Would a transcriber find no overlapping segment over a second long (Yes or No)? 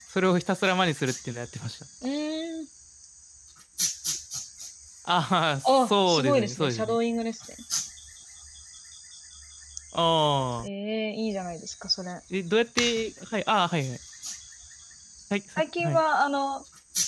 No